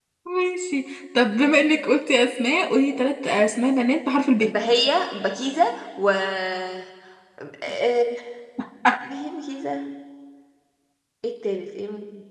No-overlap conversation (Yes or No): Yes